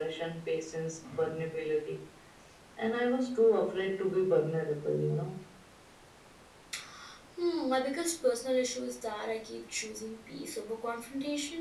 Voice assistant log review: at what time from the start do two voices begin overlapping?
none

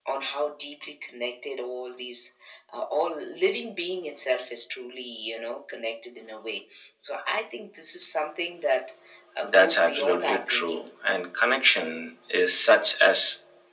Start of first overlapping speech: 9 s

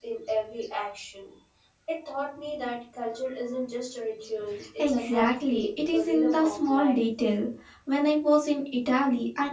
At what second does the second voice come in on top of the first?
5 s

